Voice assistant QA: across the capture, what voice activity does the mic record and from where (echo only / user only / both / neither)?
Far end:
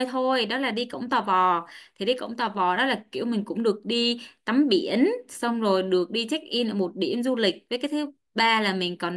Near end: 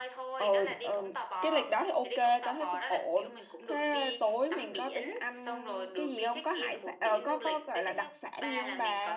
both